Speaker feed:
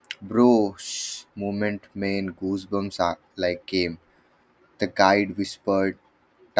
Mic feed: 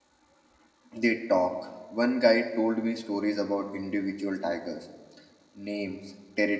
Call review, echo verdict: none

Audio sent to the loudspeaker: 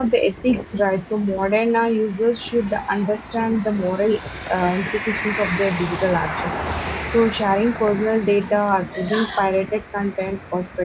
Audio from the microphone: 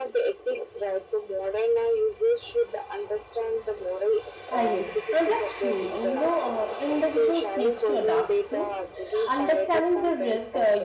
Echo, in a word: present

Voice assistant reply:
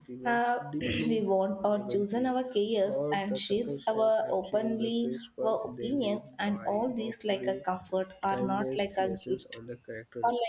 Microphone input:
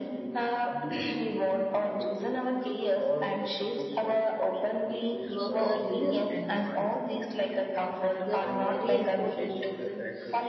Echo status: present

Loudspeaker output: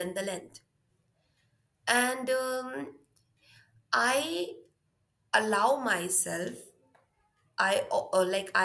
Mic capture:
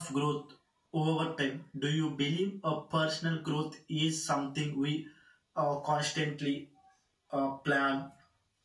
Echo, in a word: none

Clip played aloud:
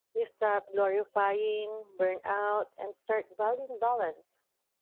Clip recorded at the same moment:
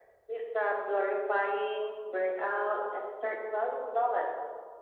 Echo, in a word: present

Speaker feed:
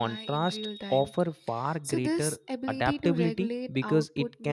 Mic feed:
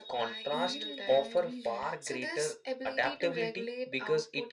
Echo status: present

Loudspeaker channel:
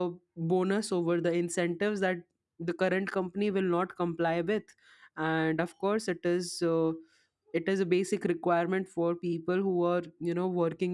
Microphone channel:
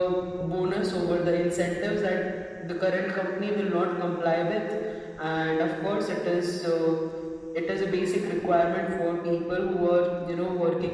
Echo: present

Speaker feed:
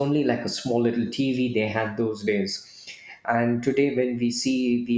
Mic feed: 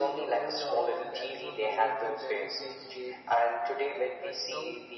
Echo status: present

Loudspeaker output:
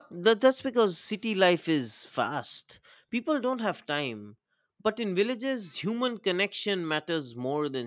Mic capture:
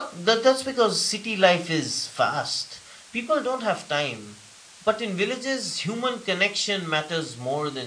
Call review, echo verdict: present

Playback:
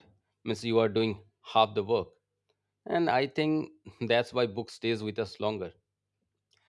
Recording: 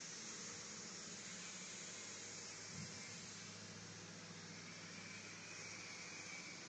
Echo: none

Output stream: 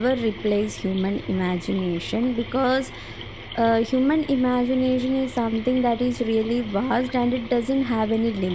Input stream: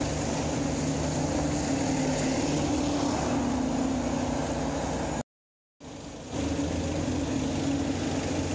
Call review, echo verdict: none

